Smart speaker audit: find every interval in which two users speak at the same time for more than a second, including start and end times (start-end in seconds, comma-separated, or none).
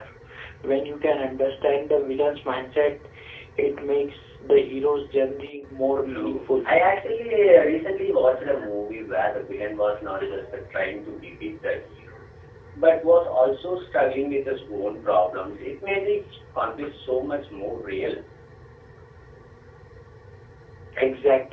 none